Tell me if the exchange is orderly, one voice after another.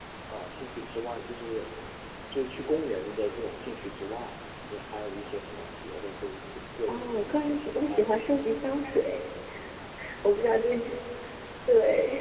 No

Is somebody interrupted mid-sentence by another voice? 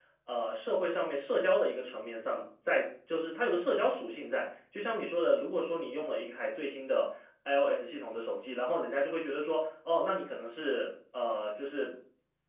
No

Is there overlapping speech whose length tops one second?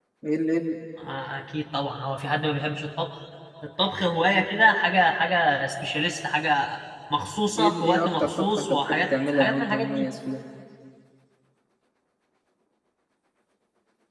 Yes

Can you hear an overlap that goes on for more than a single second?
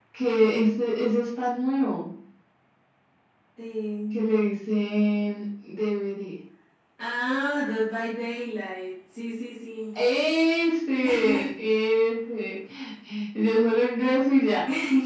No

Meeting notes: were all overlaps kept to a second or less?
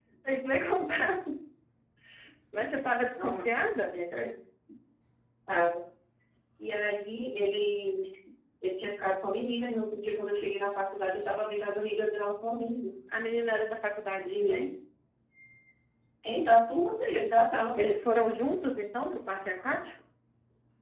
Yes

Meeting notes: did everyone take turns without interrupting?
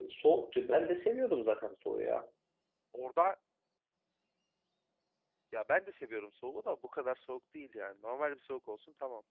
Yes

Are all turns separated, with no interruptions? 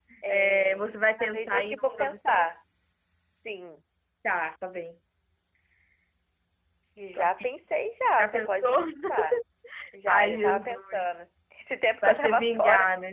No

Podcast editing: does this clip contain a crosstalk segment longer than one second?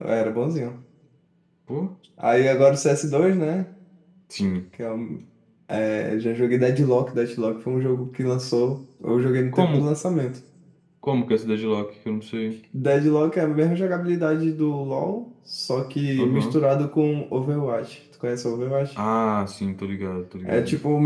No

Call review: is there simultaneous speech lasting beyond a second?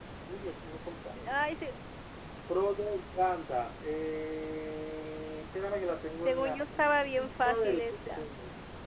Yes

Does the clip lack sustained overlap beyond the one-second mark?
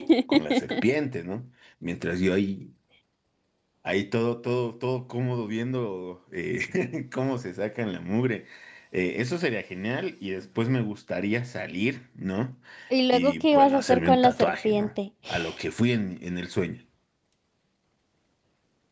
No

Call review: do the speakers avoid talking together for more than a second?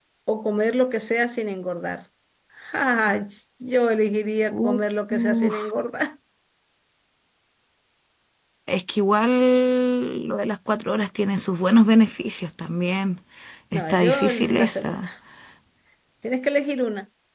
No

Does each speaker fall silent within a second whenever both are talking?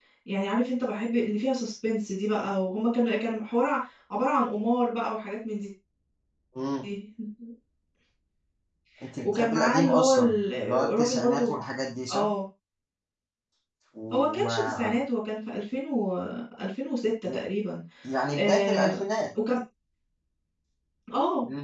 No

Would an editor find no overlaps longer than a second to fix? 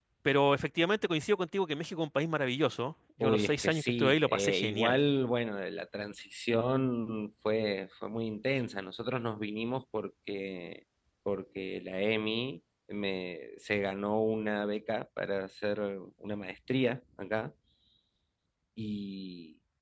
No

